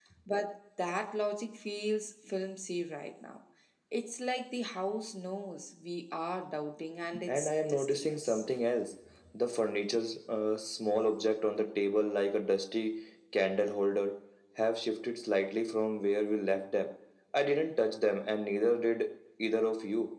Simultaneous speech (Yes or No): Yes